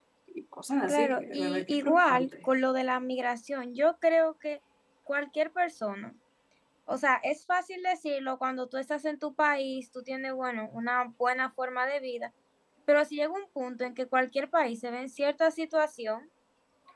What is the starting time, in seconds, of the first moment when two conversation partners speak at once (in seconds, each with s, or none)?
0.9 s